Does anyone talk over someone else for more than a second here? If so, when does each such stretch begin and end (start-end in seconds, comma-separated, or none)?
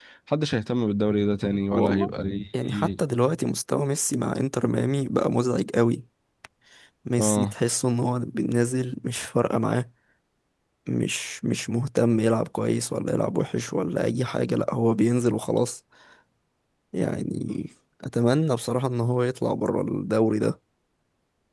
none